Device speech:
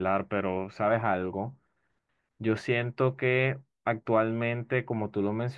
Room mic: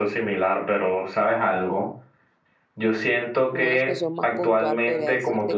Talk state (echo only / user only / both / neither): both